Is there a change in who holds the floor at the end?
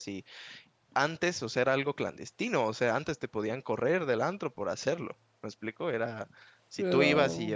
No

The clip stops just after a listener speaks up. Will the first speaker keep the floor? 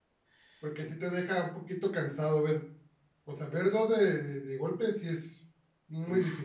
No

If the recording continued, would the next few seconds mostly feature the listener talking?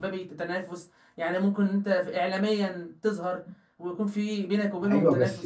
Yes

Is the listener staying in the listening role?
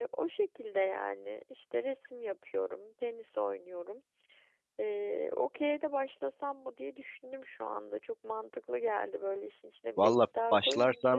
No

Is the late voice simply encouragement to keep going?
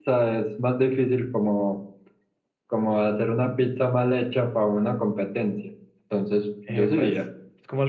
No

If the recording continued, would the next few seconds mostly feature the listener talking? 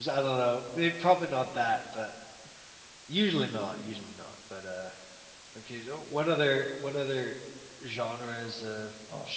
Yes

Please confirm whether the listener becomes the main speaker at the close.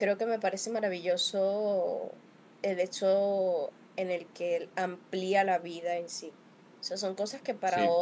No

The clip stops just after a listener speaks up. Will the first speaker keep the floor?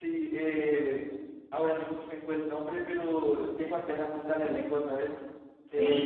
No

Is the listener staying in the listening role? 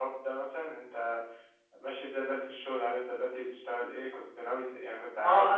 No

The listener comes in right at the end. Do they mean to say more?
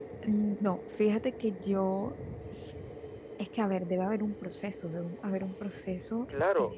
Yes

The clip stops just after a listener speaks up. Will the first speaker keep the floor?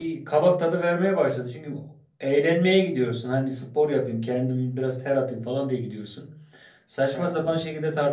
Yes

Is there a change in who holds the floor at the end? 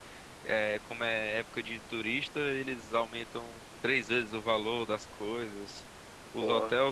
No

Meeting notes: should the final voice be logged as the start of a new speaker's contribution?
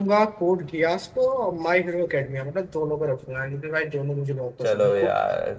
Yes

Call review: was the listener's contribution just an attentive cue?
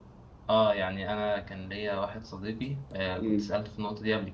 Yes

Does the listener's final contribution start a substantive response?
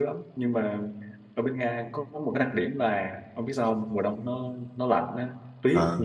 No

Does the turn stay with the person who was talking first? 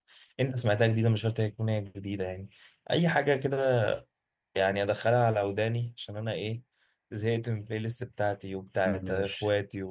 Yes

